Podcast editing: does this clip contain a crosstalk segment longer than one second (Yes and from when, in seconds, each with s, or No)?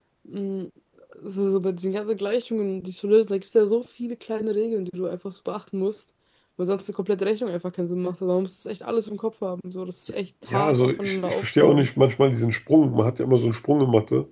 Yes, from 10.4 s